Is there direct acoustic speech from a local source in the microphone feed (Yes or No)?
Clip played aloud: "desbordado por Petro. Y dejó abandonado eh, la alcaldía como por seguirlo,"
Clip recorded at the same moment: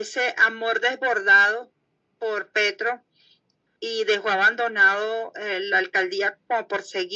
No